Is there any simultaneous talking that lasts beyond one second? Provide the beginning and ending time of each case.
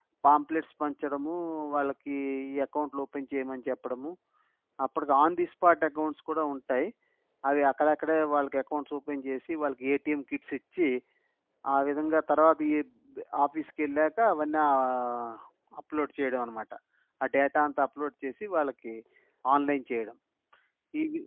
none

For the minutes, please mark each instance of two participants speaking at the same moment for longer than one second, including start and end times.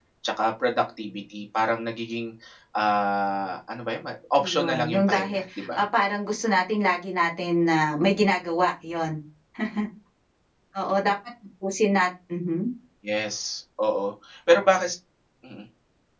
4.4-5.8

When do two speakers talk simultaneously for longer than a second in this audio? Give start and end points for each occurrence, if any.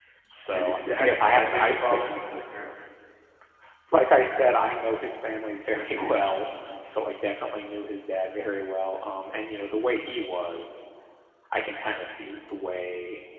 0.5-2.2

